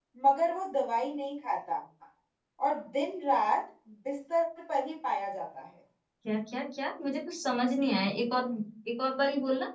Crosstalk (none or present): none